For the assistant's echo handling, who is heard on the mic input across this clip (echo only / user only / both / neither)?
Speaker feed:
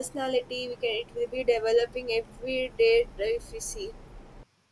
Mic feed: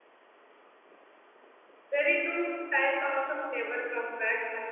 user only